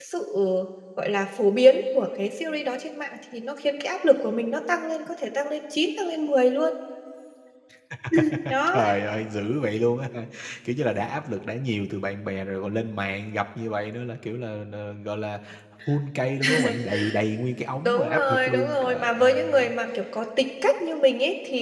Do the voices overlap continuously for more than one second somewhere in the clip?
Yes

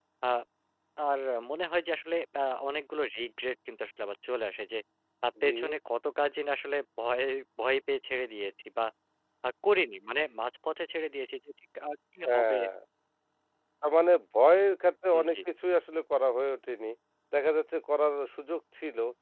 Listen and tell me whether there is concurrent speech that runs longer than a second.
No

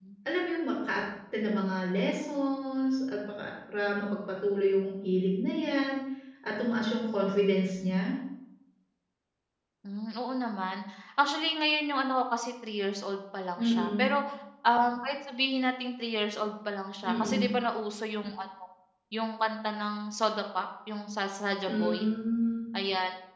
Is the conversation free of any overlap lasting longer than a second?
Yes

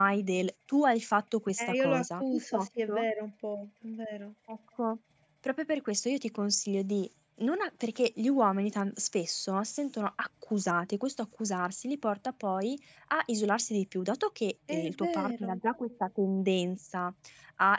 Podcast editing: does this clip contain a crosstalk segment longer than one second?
Yes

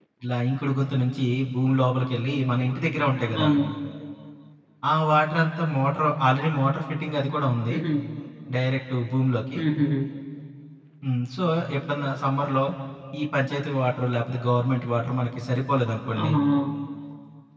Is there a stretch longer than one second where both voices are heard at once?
No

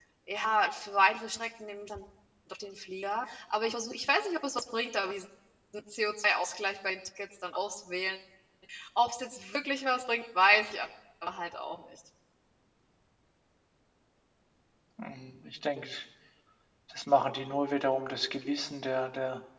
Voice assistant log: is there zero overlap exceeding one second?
Yes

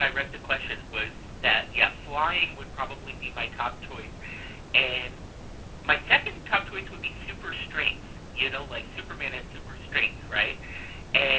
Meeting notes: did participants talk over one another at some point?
No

